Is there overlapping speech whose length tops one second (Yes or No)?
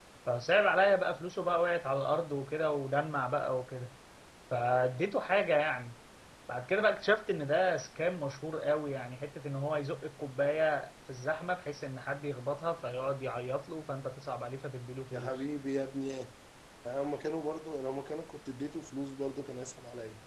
No